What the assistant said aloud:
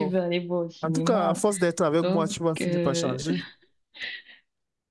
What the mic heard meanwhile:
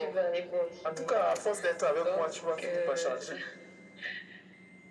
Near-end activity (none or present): none